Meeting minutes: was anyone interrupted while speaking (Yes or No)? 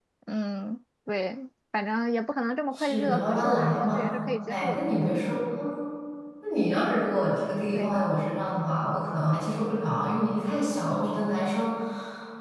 Yes